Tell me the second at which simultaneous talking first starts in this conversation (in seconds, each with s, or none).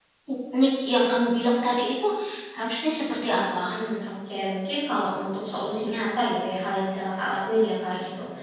none